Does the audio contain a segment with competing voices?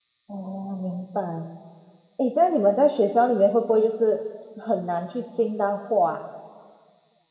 No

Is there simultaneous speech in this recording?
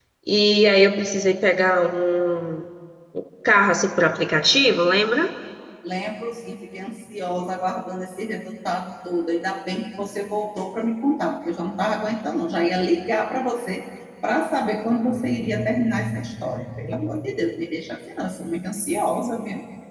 No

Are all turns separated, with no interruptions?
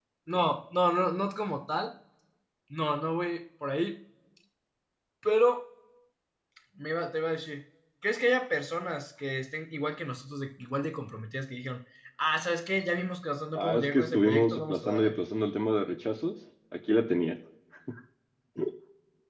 No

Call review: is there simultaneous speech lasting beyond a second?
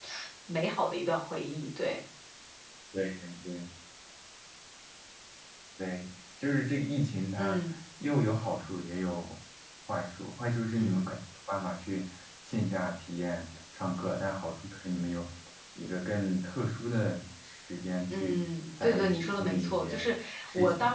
Yes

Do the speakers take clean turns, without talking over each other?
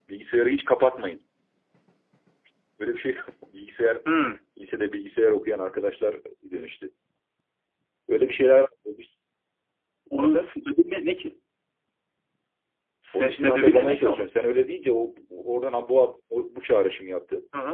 No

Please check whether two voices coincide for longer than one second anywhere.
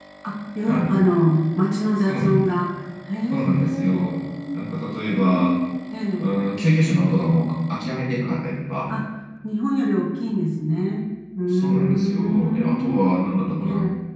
Yes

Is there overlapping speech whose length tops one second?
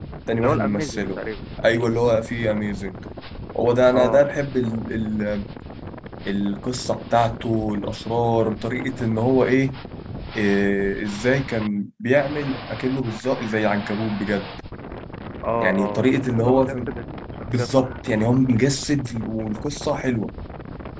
Yes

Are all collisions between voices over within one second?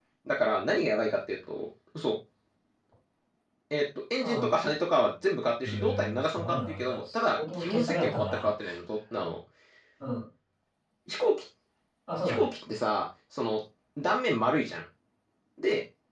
No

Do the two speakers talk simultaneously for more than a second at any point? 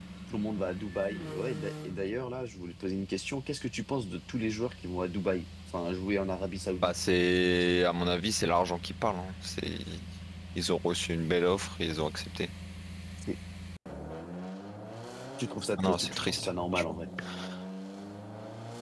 Yes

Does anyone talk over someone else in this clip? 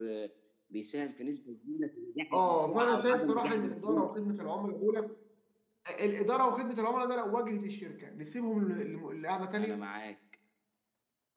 Yes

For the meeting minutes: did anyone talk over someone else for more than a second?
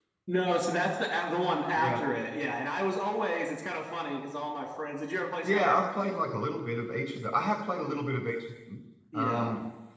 No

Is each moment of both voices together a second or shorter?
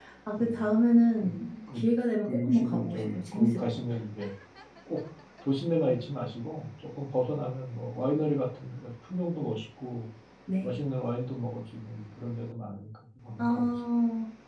No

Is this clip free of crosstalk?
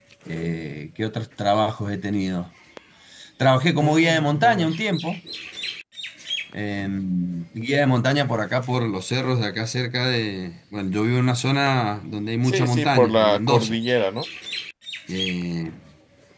No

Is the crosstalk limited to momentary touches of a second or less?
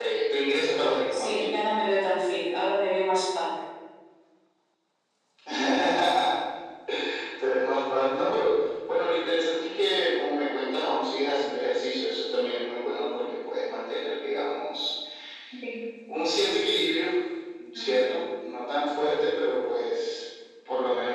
Yes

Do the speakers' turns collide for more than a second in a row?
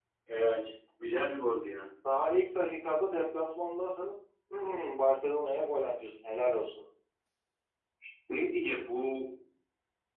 No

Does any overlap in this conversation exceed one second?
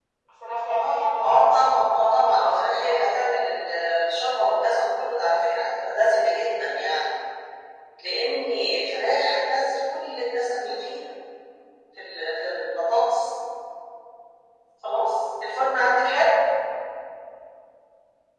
Yes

